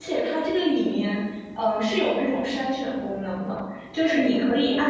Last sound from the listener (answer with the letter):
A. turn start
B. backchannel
B